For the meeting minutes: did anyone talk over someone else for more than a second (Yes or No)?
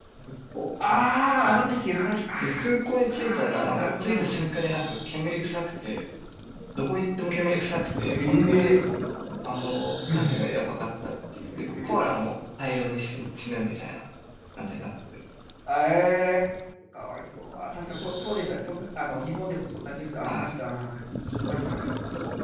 Yes